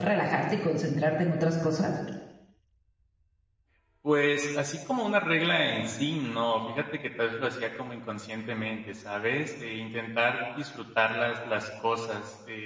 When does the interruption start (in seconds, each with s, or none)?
none